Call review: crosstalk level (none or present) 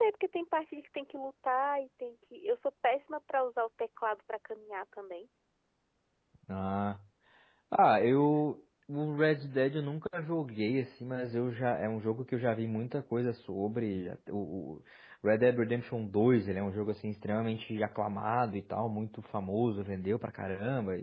none